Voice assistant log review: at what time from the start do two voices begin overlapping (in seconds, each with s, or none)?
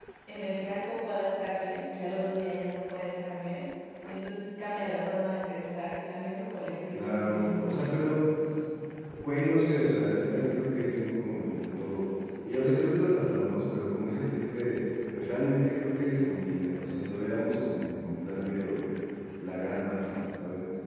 6.9 s